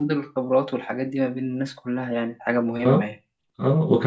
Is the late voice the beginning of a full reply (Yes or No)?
Yes